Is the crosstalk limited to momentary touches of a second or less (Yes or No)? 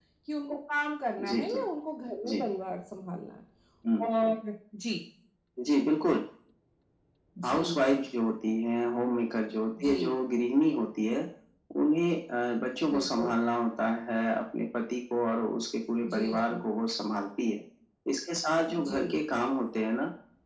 Yes